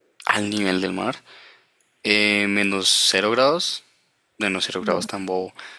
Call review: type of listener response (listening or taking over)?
listening